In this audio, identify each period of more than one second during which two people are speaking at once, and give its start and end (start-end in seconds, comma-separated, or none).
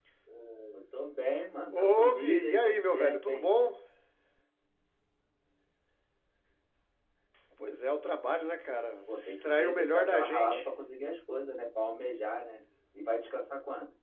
1.7-3.5, 9.1-10.7